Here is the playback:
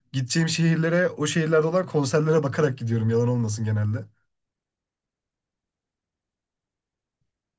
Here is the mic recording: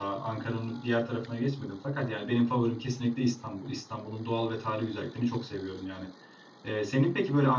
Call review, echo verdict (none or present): none